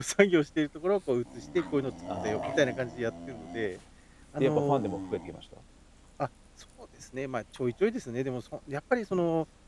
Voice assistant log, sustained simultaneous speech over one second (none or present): none